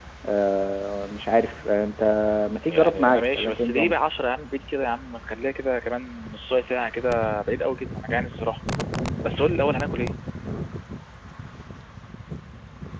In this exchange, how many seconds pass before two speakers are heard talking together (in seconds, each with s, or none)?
2.6 s